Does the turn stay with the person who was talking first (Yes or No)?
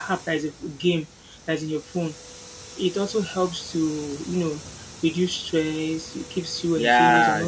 No